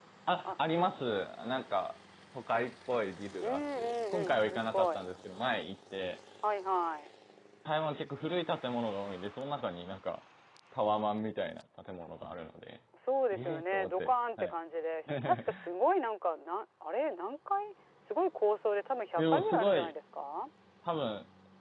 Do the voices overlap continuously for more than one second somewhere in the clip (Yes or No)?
Yes